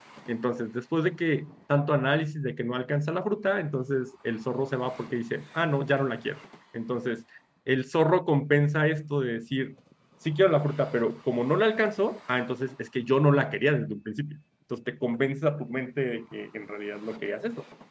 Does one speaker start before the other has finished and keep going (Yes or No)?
No